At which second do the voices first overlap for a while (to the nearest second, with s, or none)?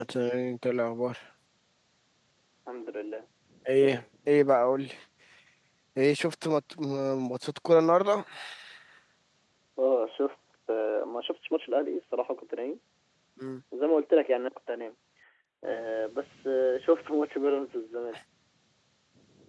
none